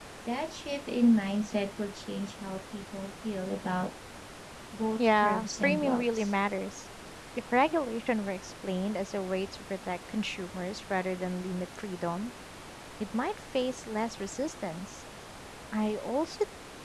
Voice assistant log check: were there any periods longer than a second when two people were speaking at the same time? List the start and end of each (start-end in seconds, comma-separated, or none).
5.0-6.3